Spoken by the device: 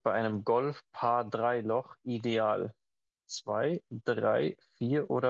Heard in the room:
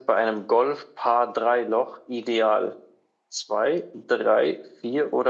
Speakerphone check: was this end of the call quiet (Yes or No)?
Yes